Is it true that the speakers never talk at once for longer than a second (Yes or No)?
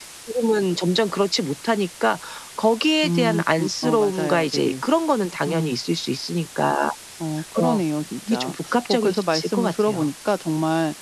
No